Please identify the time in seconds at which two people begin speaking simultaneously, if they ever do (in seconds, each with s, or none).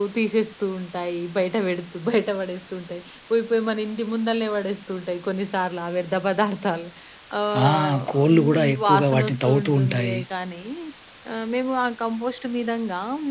7.7 s